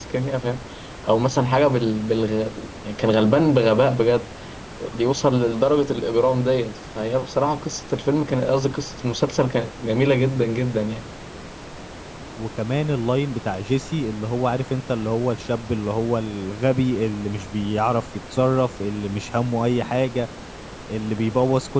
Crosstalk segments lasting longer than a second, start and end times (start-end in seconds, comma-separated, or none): none